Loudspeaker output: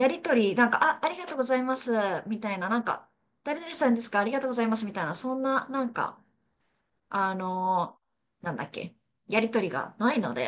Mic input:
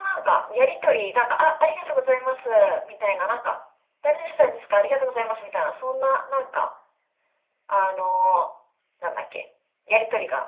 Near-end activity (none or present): none